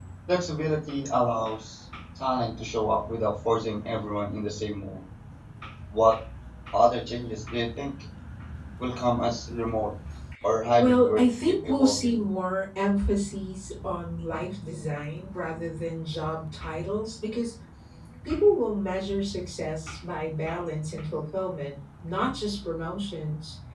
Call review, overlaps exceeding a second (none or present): present